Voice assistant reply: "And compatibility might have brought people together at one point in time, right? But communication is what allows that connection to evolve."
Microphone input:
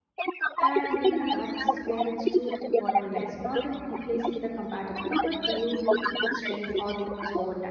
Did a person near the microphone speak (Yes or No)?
Yes